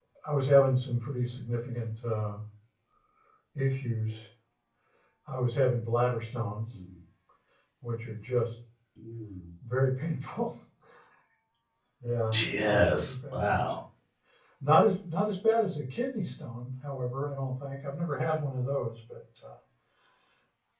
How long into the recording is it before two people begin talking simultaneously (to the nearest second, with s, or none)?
12 s